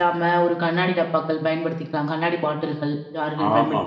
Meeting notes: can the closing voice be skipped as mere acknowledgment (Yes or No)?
No